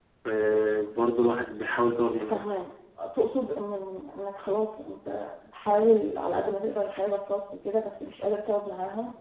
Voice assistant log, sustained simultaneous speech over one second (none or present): none